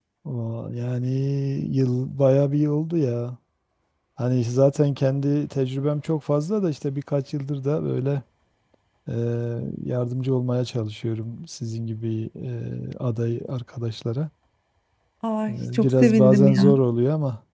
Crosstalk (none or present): present